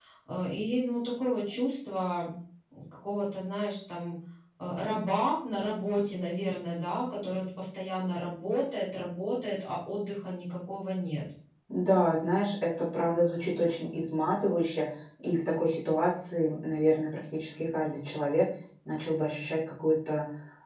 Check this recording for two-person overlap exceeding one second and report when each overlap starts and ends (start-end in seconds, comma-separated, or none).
none